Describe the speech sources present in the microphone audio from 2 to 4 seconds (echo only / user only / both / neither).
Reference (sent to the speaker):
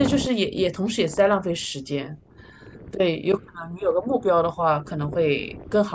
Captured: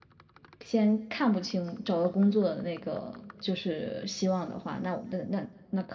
user only